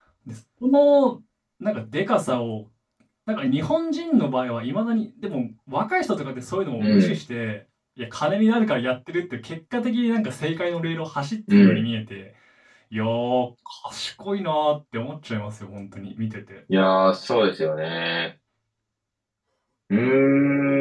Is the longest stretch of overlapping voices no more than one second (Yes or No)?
Yes